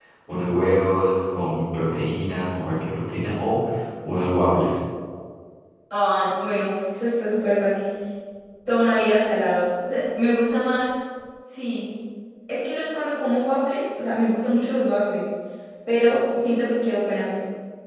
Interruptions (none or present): none